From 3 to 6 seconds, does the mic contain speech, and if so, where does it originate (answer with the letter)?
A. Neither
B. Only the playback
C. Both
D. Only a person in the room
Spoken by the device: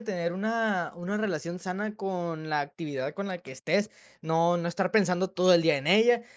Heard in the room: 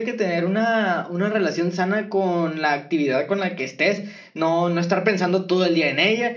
B